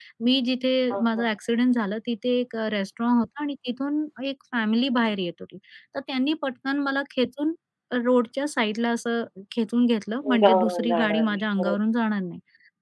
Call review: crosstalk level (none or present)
present